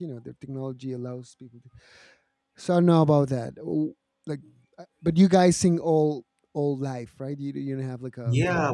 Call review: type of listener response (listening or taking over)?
taking over